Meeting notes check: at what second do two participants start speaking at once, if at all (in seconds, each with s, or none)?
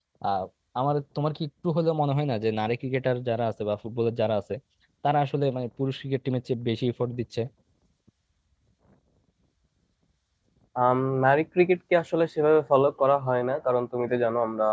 none